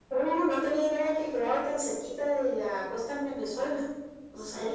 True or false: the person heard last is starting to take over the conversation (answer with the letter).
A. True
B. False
A